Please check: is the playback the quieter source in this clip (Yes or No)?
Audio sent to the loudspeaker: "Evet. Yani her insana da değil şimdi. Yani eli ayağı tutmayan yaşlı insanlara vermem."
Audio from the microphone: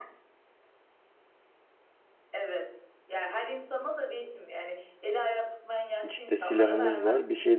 Yes